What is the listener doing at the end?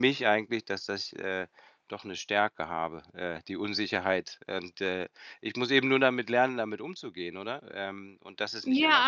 taking over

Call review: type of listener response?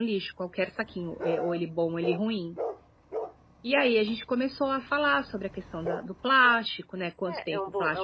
taking over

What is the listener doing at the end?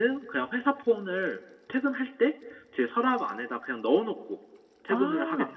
taking over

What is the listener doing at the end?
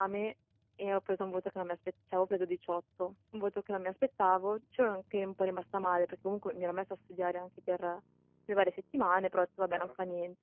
listening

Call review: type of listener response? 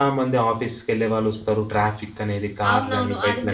taking over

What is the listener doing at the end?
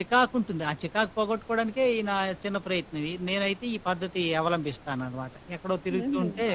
taking over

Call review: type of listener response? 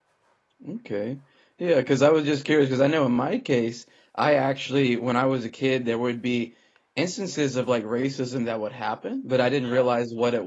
listening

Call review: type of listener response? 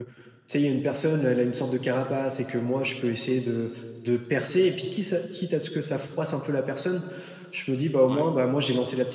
listening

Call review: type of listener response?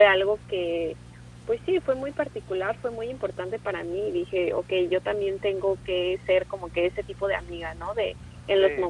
listening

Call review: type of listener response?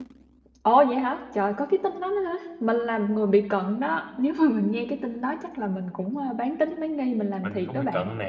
taking over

